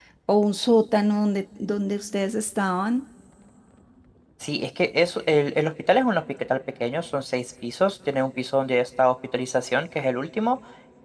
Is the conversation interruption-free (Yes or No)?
Yes